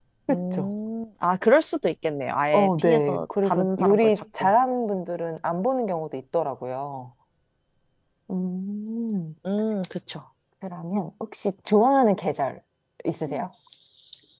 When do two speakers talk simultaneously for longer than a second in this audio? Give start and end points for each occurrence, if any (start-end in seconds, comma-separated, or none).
2.5-4.5